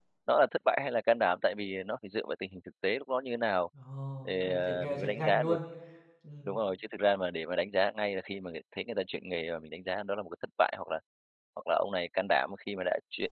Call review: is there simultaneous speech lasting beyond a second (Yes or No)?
Yes